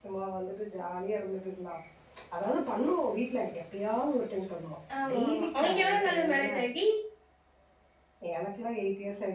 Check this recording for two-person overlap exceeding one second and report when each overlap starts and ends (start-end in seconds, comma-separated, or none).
5.1-6.5